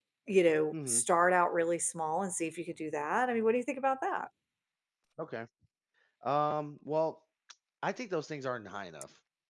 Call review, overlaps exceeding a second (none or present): none